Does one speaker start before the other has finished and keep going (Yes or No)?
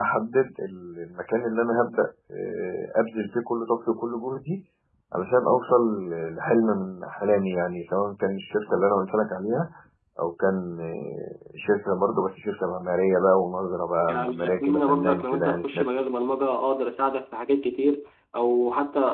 Yes